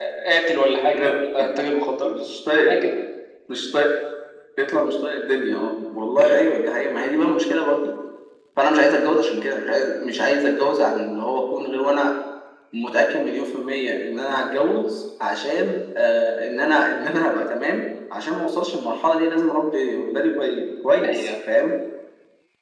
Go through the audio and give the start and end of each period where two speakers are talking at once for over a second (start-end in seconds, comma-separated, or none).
none